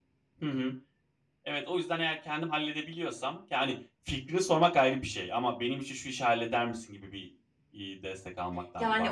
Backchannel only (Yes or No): No